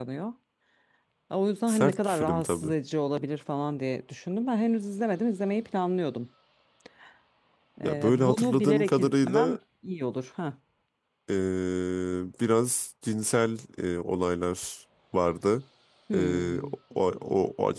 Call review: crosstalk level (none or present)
present